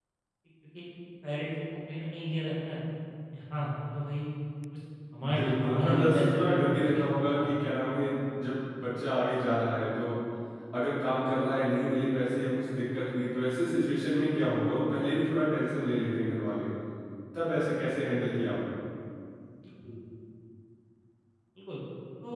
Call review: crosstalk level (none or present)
present